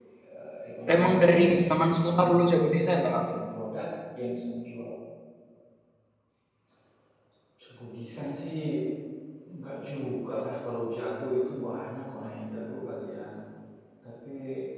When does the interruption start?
0.9 s

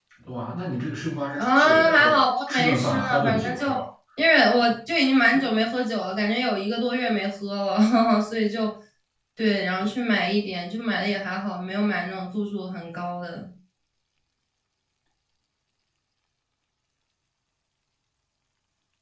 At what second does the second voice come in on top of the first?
1.4 s

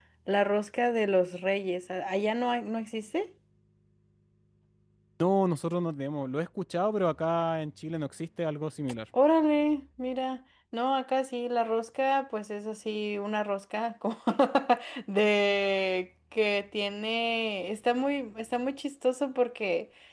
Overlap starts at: none

